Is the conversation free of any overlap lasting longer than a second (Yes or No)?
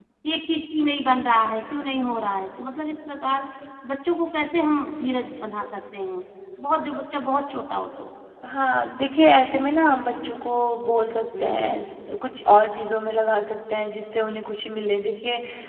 Yes